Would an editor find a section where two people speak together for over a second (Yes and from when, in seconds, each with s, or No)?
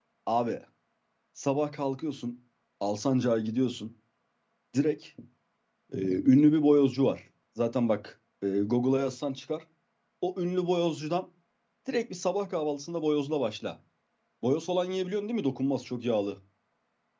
No